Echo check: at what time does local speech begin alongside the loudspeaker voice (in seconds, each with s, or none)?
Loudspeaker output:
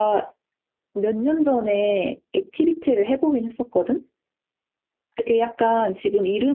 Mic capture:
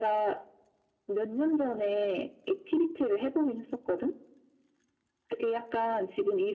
none